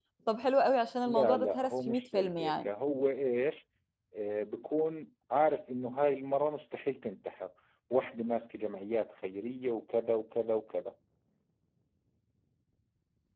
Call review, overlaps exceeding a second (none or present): present